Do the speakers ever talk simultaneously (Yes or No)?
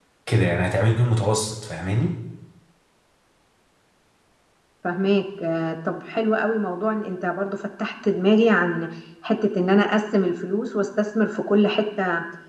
No